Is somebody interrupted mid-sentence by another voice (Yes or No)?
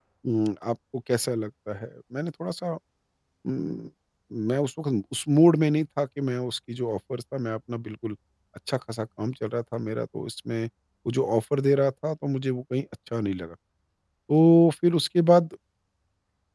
No